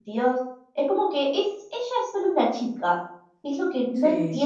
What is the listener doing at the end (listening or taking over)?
listening